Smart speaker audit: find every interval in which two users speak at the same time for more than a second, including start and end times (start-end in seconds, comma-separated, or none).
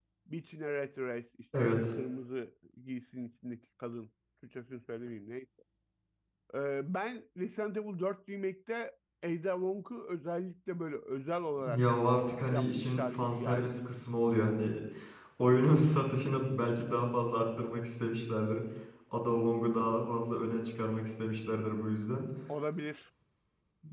12.5-13.8